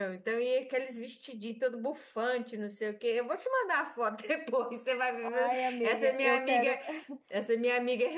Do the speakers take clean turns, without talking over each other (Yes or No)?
No